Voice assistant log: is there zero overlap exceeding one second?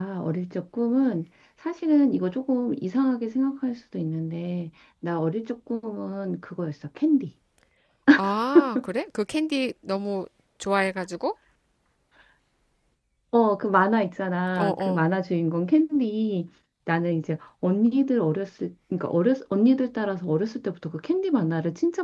Yes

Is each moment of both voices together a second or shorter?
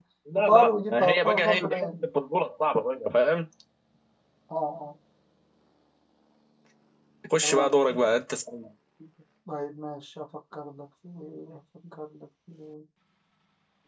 No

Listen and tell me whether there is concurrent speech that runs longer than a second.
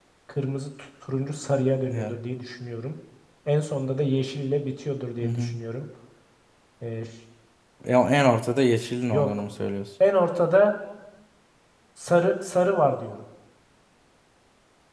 No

